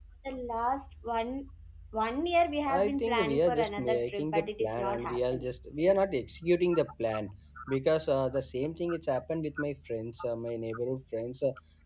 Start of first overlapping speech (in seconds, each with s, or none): 2.7 s